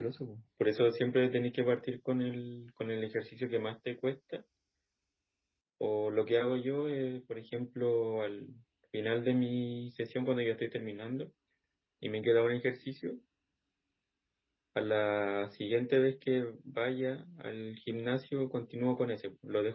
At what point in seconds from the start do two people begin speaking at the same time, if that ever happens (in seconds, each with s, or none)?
none